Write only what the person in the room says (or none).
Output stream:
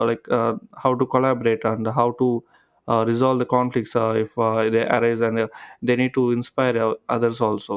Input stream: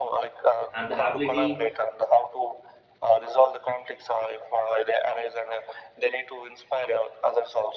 and the ability